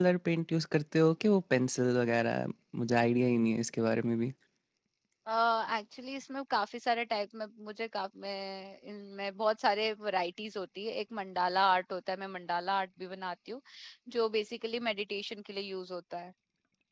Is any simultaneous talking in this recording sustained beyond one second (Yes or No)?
No